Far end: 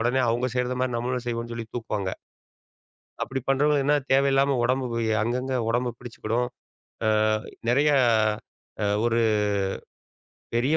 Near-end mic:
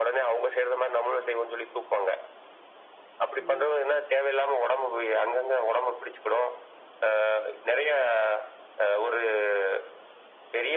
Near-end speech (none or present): present